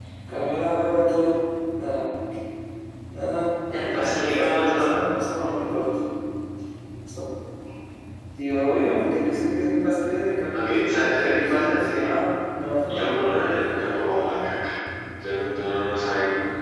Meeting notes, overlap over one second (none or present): present